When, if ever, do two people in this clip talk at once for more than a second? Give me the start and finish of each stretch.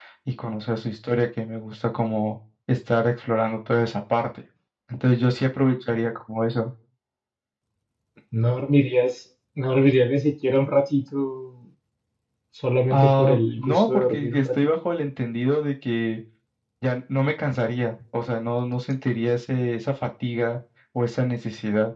12.9-14.8

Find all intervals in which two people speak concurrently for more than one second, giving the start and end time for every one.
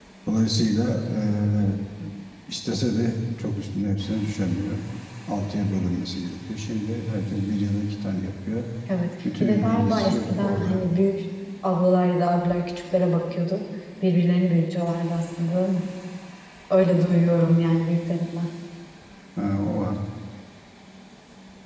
9.4-10.8

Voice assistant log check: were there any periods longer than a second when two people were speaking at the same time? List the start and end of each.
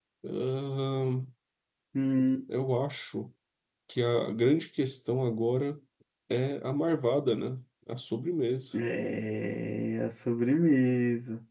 none

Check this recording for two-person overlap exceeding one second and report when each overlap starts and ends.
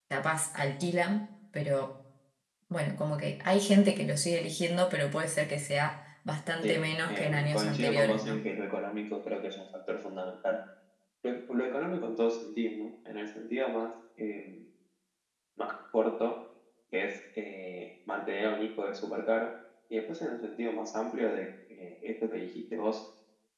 6.6-8.4

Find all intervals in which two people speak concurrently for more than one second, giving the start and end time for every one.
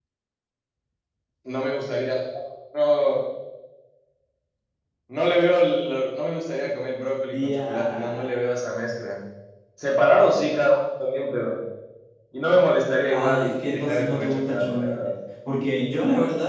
7.3-8.5, 13.1-15.1

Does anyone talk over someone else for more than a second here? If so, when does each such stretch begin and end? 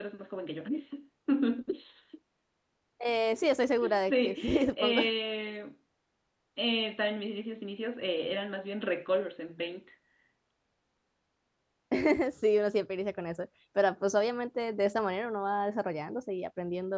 3.8-5.0

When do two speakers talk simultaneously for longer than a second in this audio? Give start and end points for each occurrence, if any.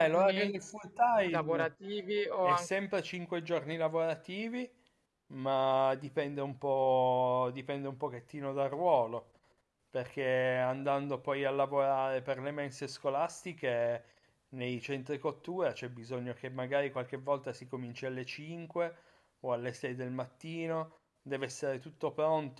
none

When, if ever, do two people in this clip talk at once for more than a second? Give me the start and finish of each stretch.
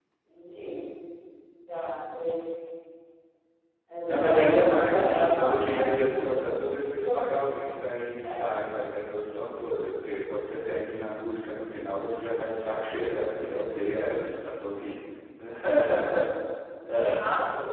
4.1-5.9

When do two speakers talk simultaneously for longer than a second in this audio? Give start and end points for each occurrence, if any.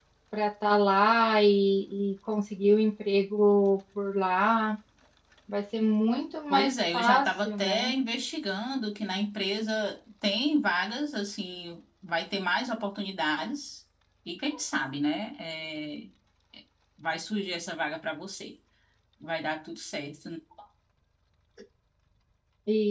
6.5-7.9

